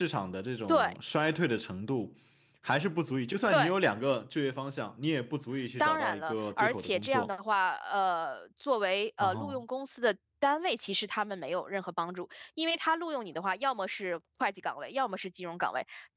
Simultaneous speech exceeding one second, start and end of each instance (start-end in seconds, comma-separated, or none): 5.8-7.3